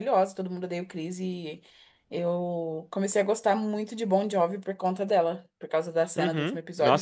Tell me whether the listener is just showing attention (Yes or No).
No